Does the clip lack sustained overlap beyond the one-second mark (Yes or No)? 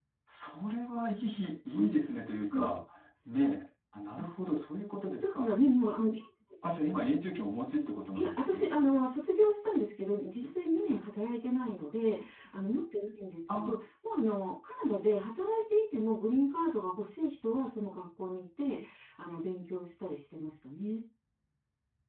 Yes